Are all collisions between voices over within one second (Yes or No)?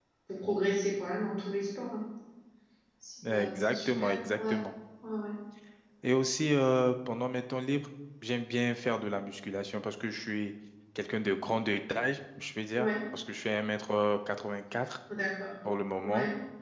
No